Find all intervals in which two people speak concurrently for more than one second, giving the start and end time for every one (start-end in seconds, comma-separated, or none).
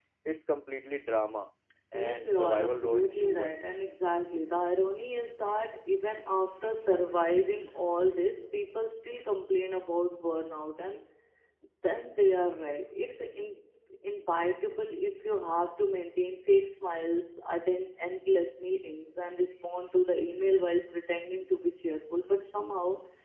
1.9-3.6